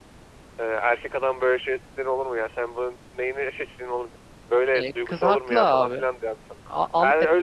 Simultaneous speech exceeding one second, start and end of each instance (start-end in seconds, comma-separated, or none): 4.7-6.0